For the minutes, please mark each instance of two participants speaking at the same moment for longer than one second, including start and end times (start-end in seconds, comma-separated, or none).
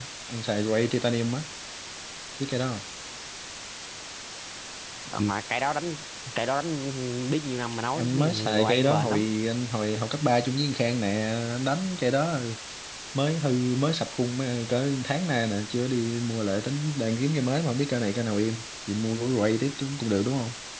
8.0-9.2